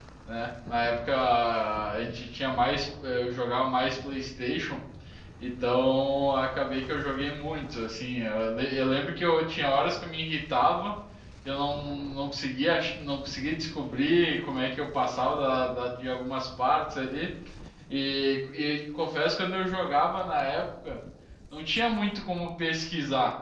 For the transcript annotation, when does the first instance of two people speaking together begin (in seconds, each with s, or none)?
none